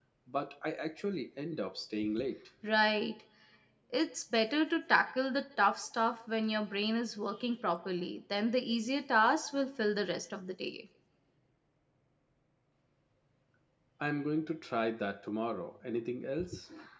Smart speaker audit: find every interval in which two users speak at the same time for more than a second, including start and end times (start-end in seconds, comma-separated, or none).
none